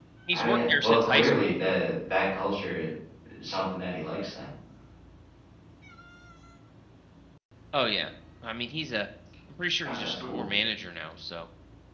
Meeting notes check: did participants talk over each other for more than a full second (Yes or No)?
Yes